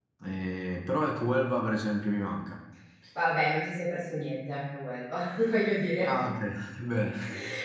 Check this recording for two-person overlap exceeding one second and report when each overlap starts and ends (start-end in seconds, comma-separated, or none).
none